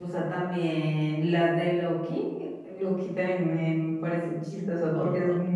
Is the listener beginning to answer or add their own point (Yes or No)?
No